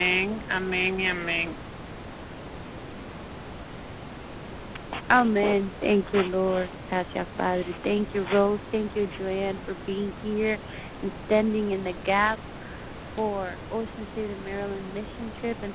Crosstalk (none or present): none